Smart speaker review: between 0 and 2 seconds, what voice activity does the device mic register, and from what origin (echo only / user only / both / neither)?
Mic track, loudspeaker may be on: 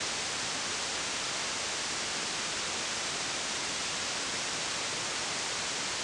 neither